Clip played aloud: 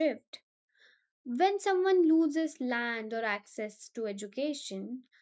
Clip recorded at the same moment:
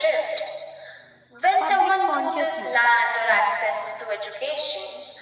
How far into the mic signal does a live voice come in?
1.6 s

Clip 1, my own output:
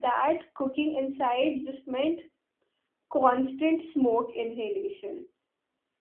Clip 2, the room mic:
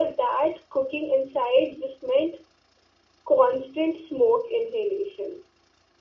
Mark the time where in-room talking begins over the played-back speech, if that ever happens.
none

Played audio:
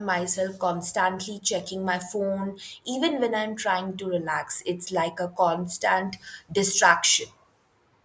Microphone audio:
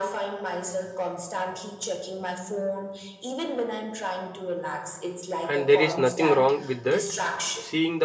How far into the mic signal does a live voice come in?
5.5 s

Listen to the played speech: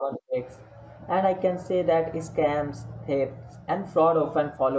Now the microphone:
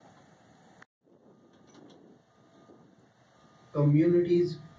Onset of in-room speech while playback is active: 3.7 s

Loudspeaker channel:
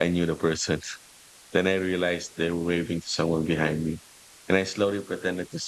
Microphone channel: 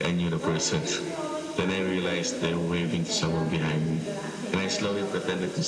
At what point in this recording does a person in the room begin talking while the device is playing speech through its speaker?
0.4 s

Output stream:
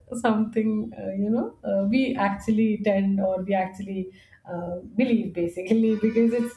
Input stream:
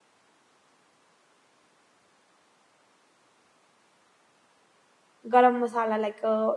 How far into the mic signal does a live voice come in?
5.3 s

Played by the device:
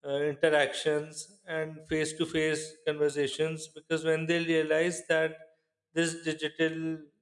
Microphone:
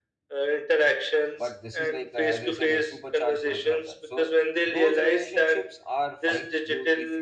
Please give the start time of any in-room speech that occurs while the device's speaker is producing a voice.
1.4 s

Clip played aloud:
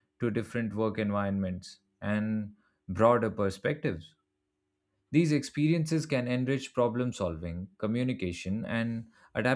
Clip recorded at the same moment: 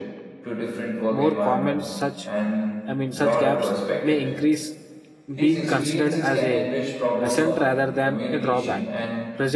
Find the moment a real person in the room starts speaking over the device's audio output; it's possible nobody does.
1.1 s

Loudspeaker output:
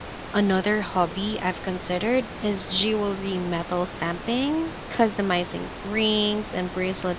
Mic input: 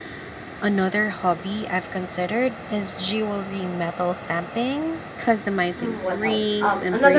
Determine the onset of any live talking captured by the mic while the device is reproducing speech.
5.8 s

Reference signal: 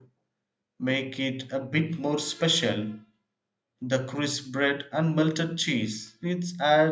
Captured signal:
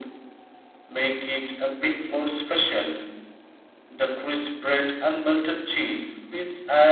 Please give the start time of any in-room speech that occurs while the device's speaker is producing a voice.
none

